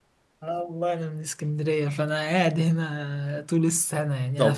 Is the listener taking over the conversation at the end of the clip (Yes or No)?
Yes